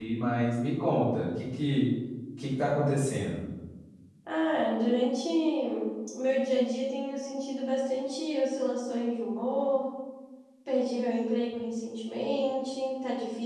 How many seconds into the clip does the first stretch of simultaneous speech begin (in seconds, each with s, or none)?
none